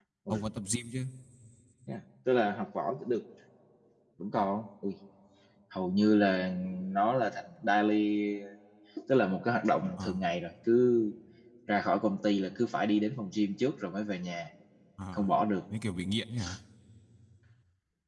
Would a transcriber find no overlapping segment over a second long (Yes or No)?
Yes